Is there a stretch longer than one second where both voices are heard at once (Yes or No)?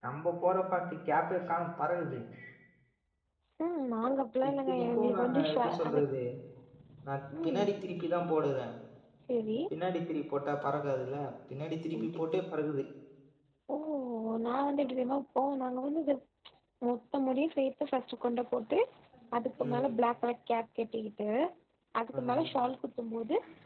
Yes